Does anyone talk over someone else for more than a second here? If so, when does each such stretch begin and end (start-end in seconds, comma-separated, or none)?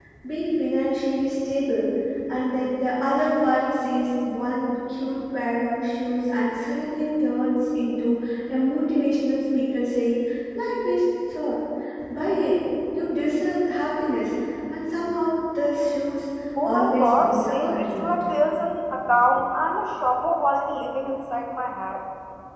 16.6-18.1